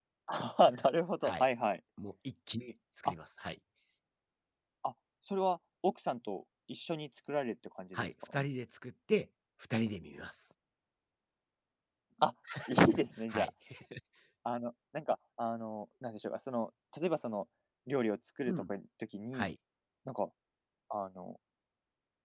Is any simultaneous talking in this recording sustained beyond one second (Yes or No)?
No